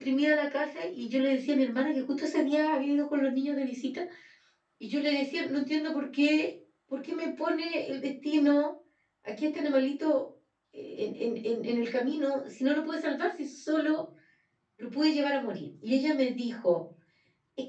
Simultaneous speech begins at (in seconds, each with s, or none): none